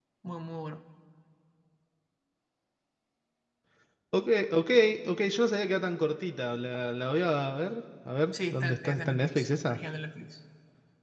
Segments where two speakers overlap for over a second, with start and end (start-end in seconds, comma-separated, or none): 8.3-9.8